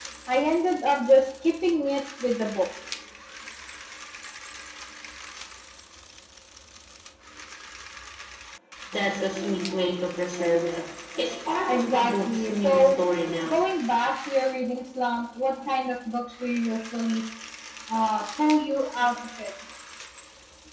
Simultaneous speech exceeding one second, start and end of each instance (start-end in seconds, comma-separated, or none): 11.7-13.0